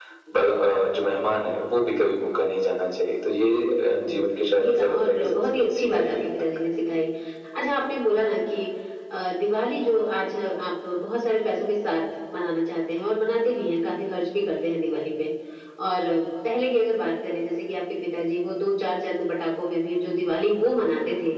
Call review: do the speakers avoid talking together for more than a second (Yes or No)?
No